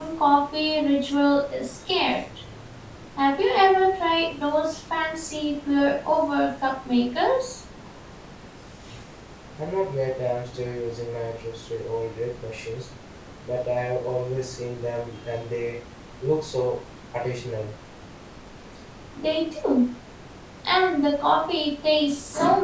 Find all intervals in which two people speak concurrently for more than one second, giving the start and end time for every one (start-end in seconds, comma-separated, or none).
none